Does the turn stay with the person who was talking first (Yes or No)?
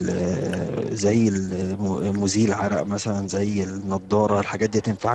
Yes